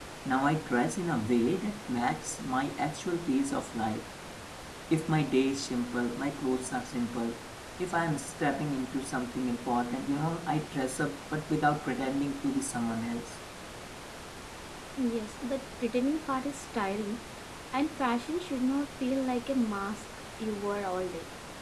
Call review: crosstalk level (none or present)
none